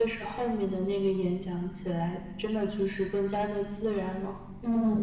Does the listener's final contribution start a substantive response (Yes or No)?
Yes